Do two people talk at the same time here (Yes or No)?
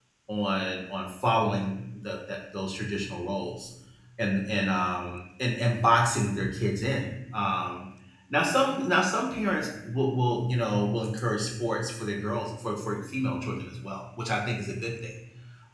No